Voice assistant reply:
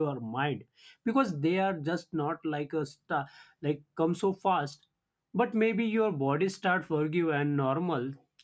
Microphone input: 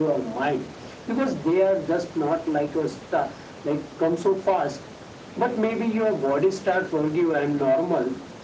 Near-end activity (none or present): none